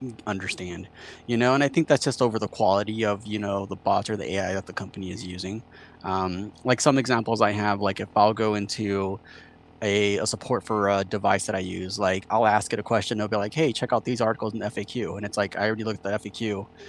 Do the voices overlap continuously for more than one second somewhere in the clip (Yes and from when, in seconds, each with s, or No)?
No